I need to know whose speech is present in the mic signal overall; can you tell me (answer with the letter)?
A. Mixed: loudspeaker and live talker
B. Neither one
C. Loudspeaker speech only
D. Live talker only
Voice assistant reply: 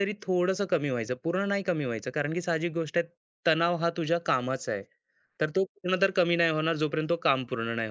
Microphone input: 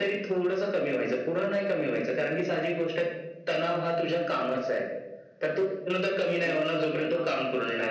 A